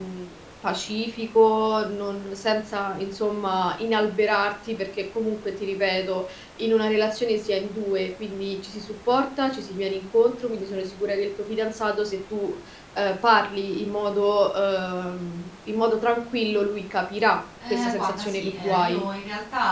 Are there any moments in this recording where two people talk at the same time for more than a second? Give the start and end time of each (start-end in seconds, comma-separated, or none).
17.7-19.1